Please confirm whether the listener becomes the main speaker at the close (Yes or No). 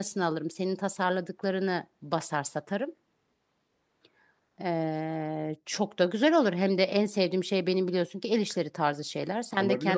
Yes